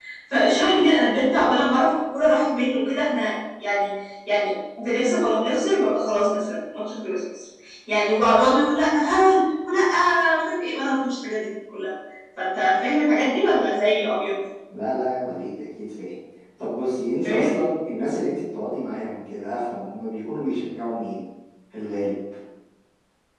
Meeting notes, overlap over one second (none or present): none